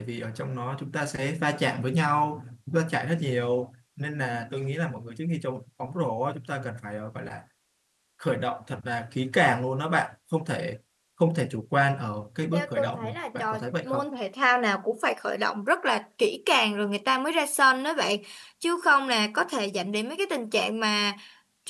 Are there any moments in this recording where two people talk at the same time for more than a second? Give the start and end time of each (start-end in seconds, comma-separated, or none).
12.5-14.0